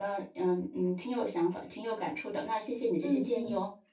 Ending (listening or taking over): taking over